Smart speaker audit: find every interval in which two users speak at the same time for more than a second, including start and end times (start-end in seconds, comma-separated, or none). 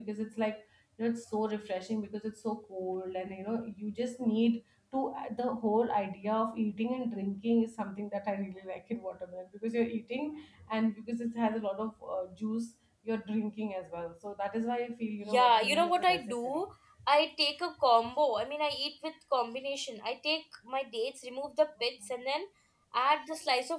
15.2-16.6